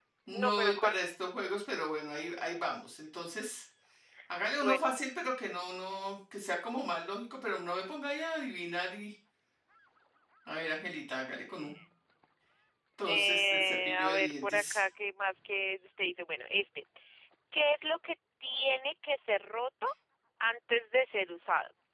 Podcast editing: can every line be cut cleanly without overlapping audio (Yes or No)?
No